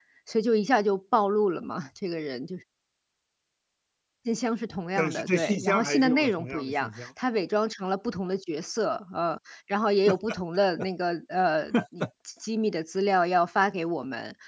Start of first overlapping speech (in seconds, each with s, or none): 5.0 s